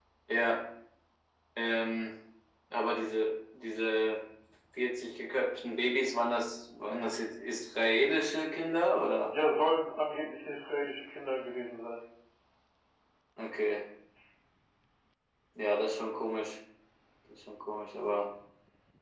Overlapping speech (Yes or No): No